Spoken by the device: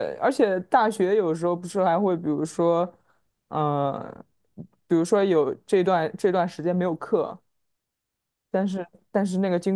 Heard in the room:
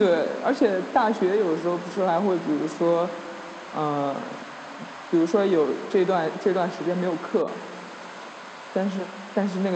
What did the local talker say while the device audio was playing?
none

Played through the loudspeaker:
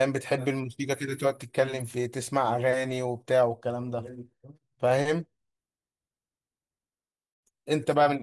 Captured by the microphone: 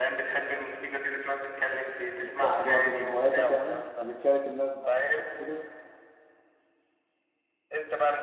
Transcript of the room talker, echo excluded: الطبخ برضو من هواياتك يعني وبتشارك الناس بقى أكلك كده

